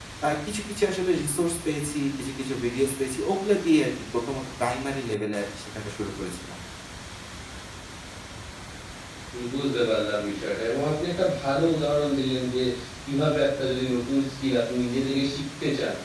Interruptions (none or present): none